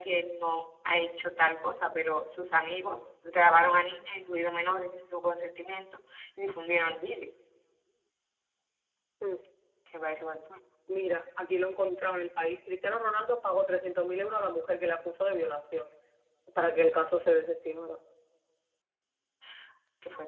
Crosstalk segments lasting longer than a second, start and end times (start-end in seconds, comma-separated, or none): none